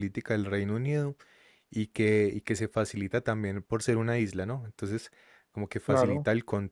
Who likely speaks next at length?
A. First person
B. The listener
A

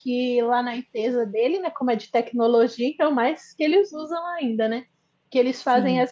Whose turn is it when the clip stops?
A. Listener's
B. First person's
B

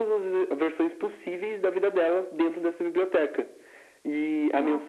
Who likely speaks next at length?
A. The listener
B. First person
B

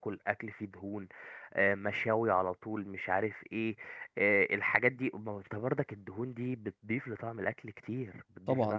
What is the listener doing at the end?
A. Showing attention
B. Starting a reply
B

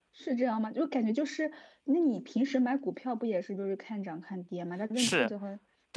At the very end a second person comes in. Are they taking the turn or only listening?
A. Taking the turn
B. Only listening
A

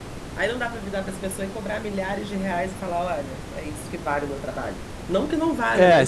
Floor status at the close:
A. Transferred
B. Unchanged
A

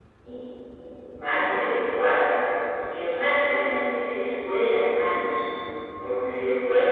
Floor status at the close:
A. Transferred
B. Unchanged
B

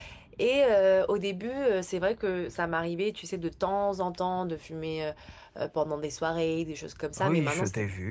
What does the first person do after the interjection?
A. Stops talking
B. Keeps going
A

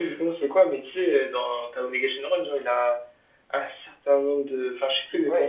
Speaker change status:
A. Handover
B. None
A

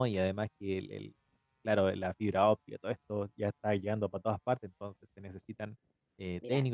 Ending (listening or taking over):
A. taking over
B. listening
B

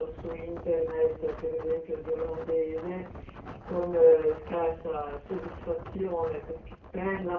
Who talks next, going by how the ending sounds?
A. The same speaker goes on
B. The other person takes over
A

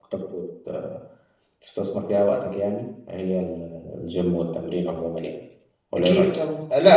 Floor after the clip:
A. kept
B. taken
B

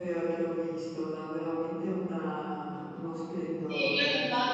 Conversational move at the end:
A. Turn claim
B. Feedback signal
A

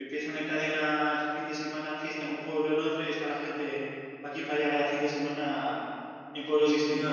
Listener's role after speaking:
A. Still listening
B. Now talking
B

